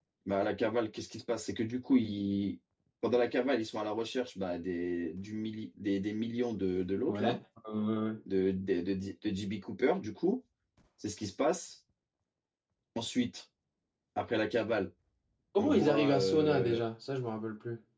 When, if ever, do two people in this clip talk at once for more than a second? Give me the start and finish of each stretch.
15.6-16.8

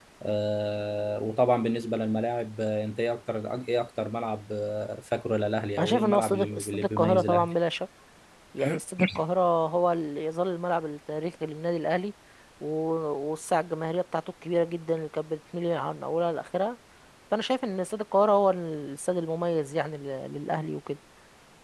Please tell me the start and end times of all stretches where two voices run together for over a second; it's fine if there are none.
5.8-7.5

